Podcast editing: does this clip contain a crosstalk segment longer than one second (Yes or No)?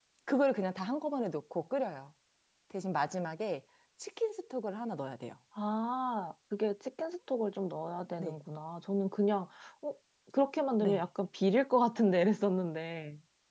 No